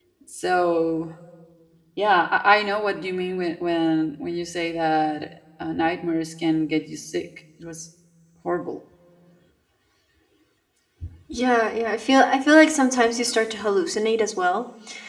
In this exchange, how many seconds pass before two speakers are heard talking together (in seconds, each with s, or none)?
none